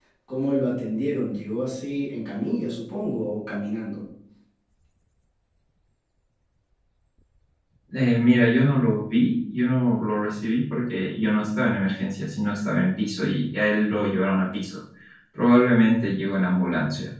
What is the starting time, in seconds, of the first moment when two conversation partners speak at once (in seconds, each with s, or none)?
none